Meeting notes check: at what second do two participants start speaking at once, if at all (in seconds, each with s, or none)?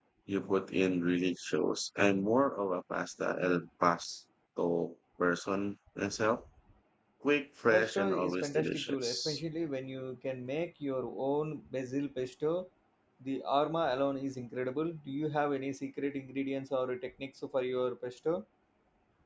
7.7 s